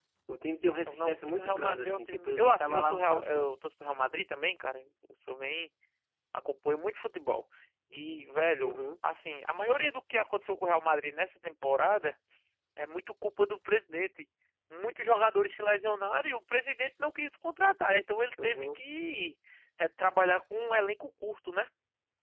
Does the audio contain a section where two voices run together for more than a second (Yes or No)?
Yes